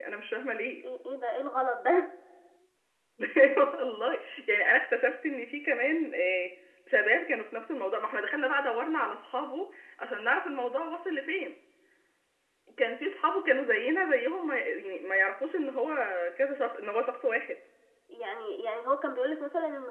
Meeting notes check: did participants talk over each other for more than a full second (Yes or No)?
No